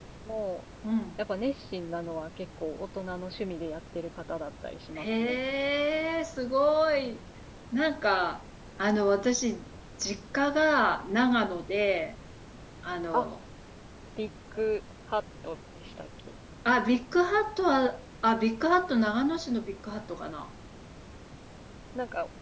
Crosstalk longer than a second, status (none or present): none